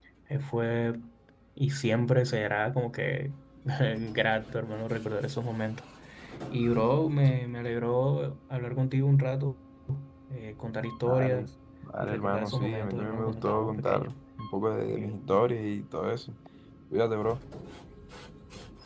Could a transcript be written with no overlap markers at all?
No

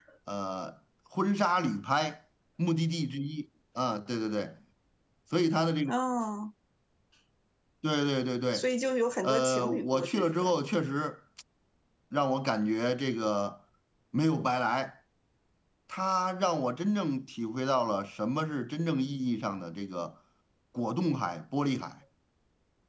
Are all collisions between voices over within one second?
No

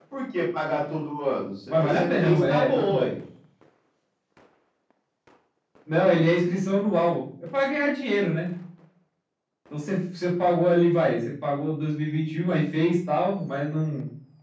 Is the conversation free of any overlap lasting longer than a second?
No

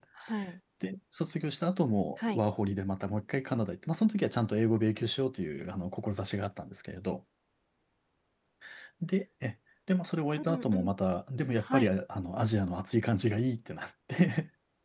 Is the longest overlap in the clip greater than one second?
No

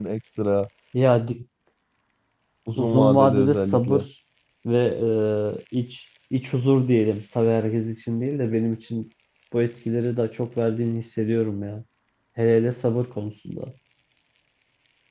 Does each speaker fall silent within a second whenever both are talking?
No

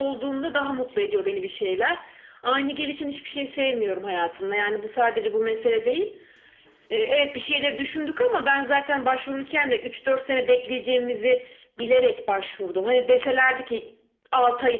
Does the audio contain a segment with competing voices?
No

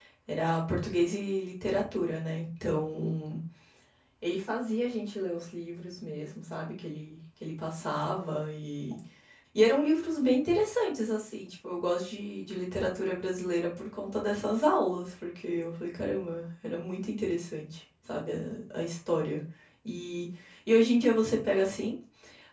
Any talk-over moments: No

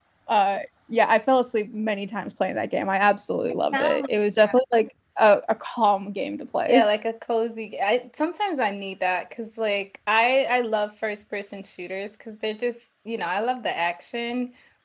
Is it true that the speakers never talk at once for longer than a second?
Yes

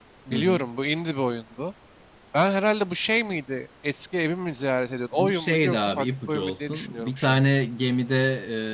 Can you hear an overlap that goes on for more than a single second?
Yes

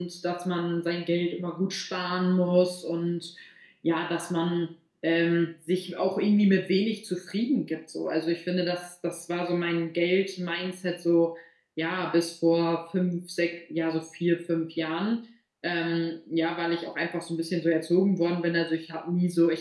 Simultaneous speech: No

